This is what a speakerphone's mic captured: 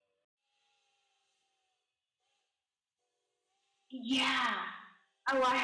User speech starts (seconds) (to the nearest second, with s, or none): 4 s